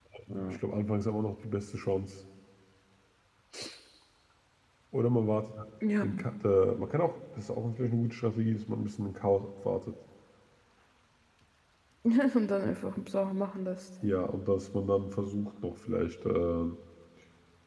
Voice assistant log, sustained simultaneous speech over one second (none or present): none